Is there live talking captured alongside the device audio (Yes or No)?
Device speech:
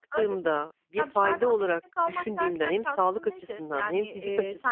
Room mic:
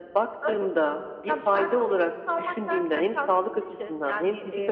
No